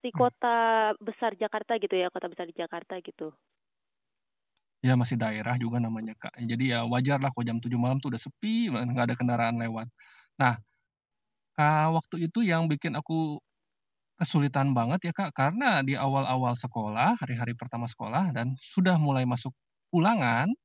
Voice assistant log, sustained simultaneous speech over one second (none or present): none